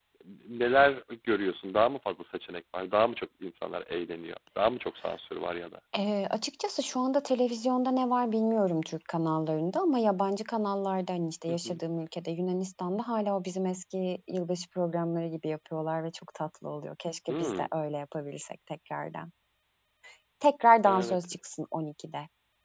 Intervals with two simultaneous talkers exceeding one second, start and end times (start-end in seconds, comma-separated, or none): none